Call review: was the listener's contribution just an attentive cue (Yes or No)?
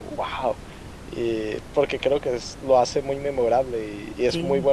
Yes